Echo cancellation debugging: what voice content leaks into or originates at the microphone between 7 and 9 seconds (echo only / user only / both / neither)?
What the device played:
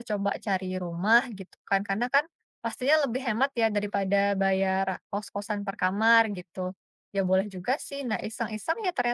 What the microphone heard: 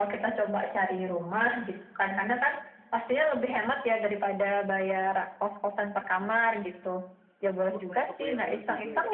both